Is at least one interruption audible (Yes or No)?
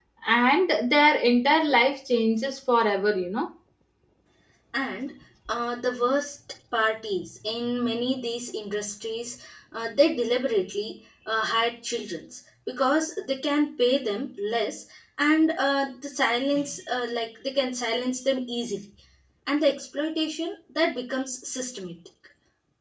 No